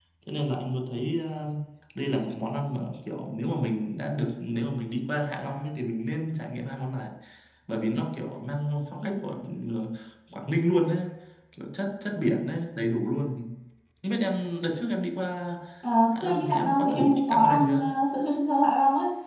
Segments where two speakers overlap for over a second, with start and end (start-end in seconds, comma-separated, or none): 16.1-17.9